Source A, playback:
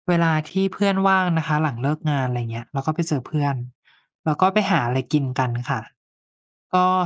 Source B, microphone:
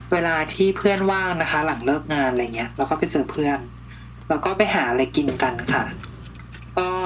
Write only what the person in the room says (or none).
none